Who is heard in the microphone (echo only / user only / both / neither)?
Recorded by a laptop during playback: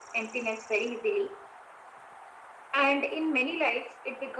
echo only